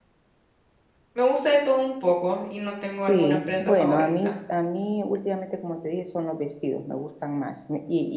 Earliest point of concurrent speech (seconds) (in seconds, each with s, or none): 3.1 s